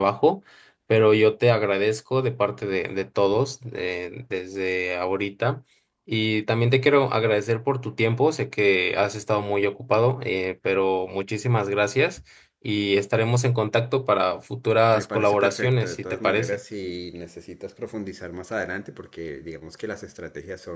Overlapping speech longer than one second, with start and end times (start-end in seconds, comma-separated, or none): 14.9-16.6